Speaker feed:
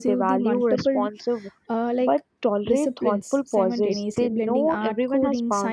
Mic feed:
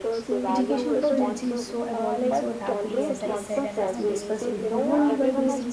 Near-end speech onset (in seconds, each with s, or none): 0.5 s